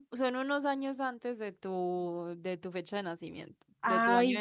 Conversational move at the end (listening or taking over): taking over